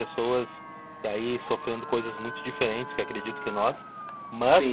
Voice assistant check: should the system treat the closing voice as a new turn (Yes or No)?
Yes